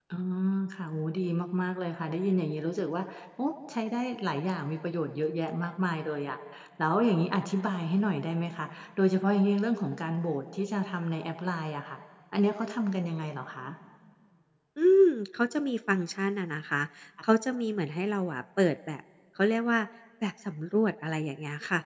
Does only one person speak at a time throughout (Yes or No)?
Yes